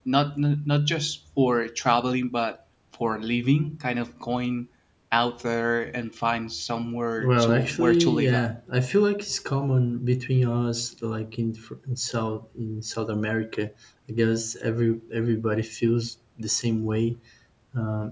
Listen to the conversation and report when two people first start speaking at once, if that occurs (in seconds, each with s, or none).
7.2 s